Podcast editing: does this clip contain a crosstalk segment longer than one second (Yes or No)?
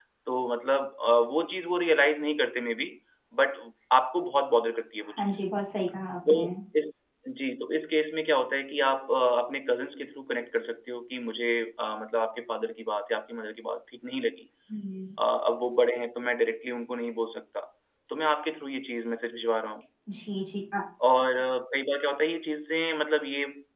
No